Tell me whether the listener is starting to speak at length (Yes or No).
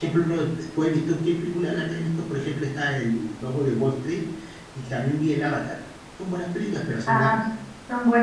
Yes